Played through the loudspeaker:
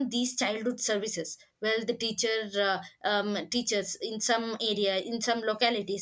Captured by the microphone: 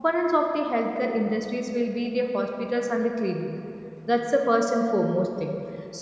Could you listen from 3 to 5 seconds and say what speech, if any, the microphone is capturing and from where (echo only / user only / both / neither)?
user only